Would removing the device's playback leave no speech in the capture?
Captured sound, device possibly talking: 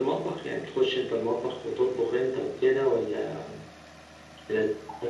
Yes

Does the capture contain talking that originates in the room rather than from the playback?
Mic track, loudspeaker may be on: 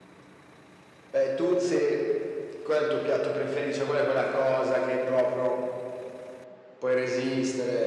No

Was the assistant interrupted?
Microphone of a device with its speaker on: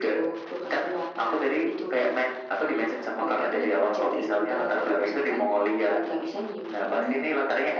No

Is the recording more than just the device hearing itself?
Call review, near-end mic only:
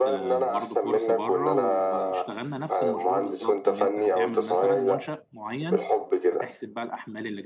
Yes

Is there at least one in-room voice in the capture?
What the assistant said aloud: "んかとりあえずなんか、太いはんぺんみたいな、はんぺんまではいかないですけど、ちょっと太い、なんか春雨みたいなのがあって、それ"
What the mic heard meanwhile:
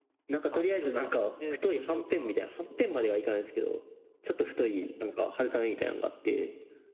Yes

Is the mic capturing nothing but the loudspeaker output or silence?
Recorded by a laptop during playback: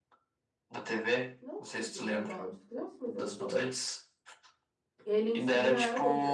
No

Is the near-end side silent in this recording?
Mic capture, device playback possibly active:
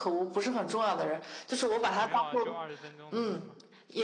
No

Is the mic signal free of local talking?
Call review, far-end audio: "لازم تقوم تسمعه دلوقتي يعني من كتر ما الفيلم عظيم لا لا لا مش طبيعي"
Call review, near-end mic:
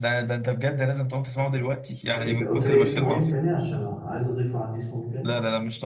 No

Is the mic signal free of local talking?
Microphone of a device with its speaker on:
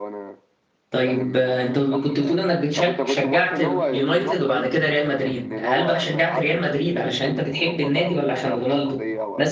No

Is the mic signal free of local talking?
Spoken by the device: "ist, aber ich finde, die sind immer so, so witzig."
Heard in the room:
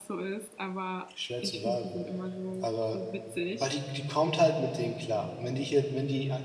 No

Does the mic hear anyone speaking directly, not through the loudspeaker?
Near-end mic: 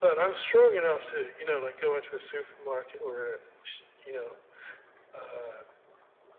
No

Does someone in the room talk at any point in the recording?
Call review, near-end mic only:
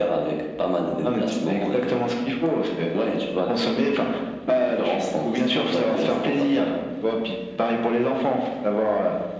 No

